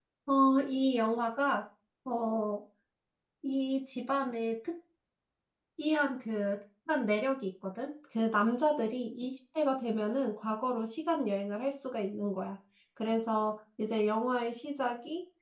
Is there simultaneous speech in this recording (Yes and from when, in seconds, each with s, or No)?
No